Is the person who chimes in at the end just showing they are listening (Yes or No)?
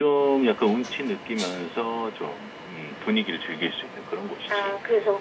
No